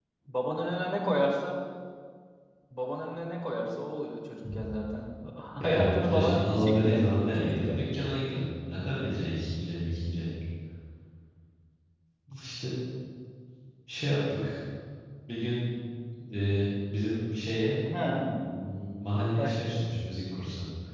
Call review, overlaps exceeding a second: present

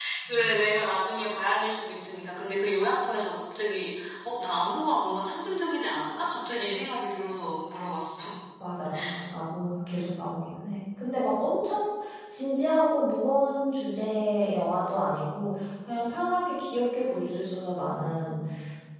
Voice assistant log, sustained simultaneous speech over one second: none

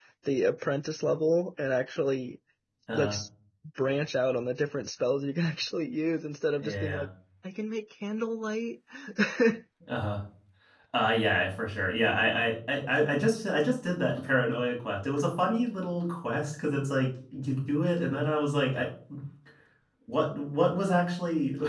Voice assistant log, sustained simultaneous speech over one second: none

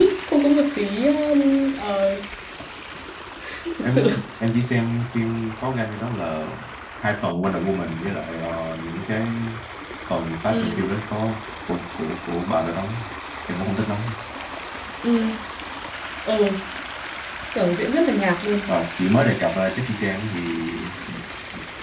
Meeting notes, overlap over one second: none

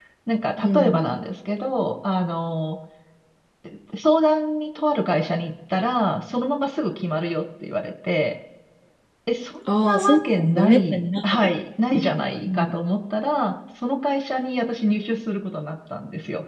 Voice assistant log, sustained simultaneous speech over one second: present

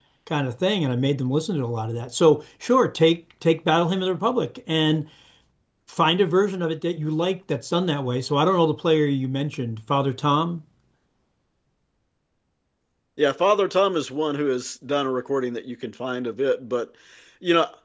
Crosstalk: none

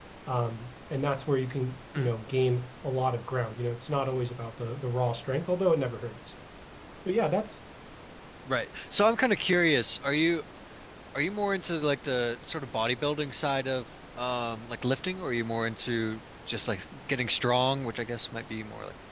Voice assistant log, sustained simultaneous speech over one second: none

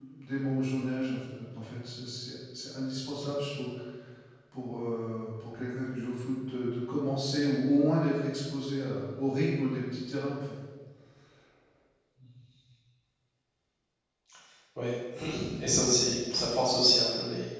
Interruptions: none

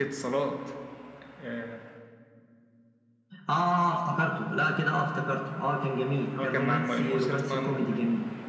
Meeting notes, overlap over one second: present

